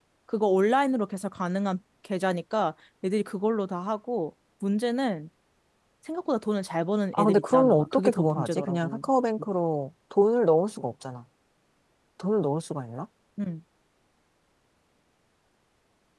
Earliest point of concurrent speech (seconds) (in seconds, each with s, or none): 7.1 s